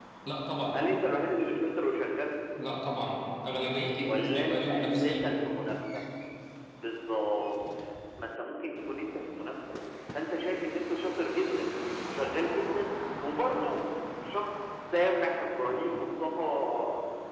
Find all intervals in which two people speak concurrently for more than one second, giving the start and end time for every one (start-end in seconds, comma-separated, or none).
4.0-5.3